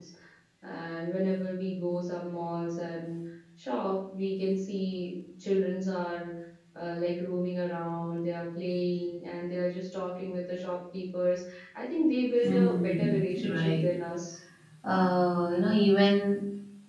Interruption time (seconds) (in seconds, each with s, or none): 12.4 s